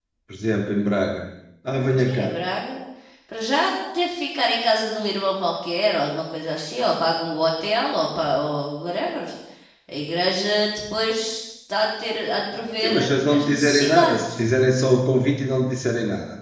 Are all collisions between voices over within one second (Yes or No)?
No